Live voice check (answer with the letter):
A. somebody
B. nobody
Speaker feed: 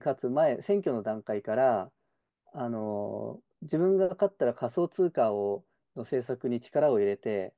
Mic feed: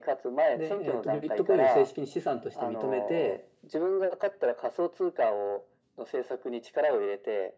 A